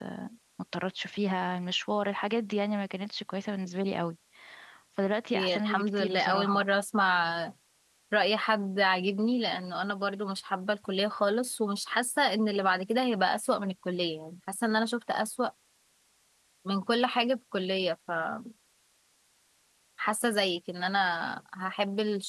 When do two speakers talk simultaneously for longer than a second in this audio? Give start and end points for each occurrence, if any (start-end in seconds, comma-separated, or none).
5.3-6.6